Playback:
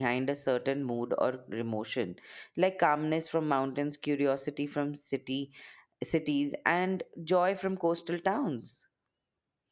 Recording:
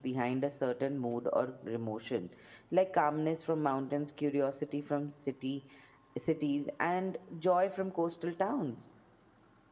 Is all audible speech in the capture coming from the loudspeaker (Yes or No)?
Yes